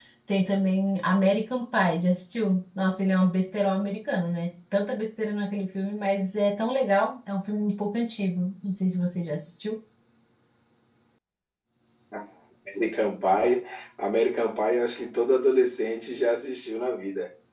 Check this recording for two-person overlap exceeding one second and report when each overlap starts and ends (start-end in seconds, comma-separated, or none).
none